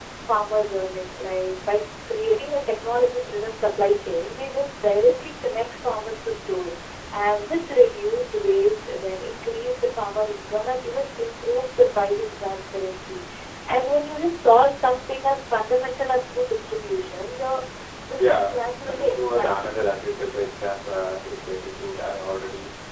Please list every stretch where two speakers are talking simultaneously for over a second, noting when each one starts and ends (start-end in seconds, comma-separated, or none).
18.2-19.6